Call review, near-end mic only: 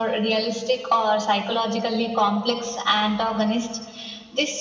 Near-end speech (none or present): none